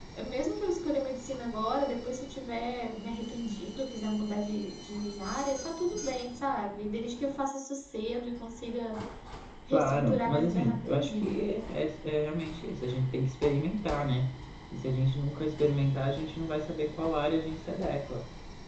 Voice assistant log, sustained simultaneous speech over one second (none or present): present